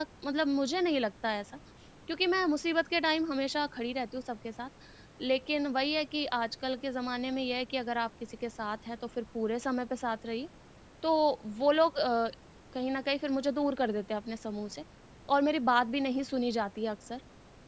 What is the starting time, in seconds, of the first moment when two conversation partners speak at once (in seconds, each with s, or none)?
none